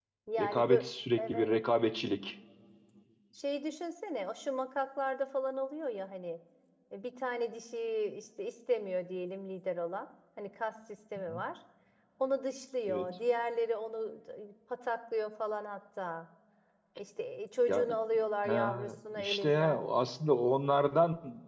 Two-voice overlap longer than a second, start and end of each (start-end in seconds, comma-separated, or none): 18.5-19.8